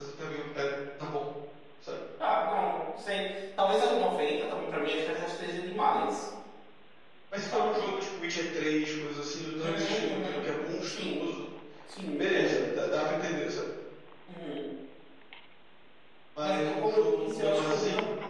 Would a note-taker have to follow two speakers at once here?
Yes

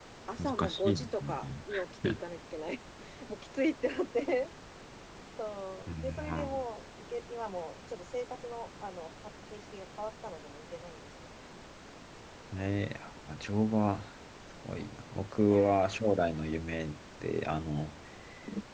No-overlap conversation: No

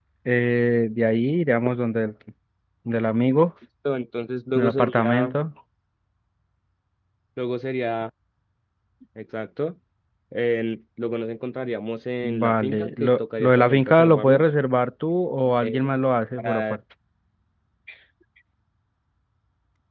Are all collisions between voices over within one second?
No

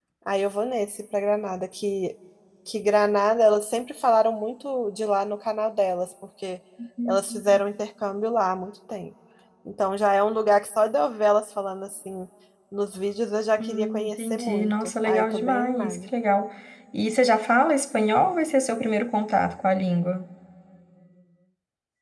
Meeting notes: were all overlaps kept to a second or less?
No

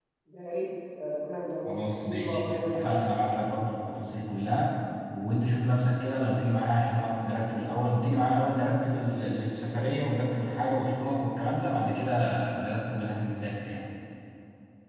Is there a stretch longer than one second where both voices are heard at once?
Yes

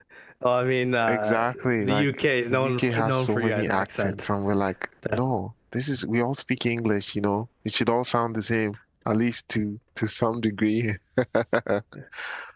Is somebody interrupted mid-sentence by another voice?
Yes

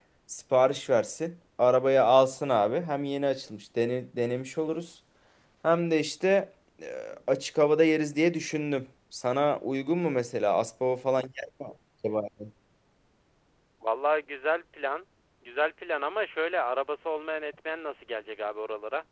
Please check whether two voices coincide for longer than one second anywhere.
No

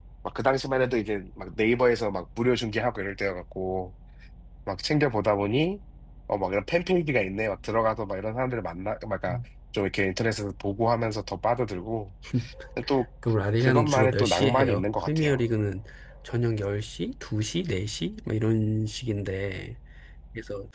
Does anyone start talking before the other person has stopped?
Yes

